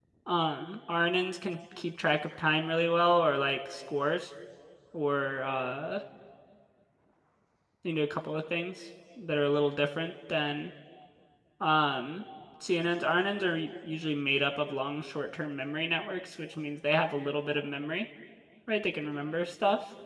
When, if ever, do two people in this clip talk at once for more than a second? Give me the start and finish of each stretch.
none

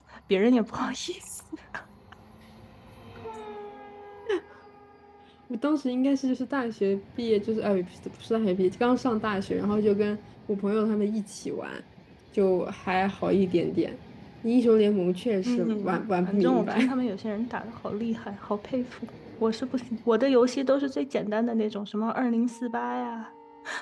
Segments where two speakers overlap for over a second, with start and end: 15.4-16.9

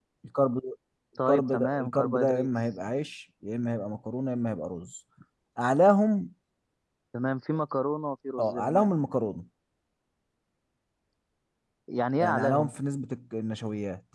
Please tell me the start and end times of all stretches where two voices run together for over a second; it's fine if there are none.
1.3-2.5

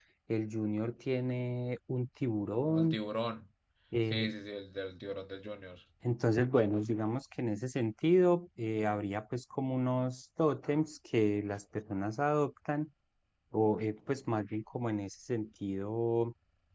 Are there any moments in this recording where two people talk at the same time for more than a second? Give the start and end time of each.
none

